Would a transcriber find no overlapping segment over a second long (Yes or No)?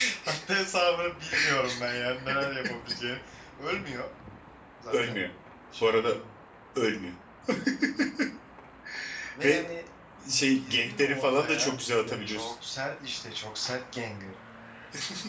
No